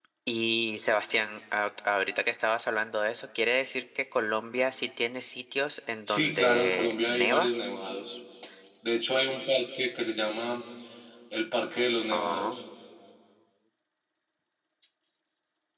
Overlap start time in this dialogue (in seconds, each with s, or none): 6.1 s